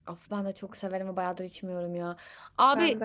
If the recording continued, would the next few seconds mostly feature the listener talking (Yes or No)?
No